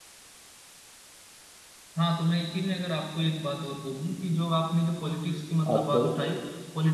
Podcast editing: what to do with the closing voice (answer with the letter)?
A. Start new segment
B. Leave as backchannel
B